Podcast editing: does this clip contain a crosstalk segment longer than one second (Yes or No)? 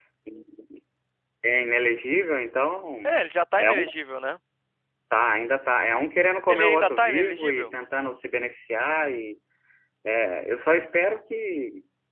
Yes